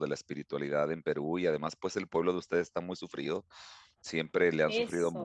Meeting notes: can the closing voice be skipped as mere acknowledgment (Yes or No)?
Yes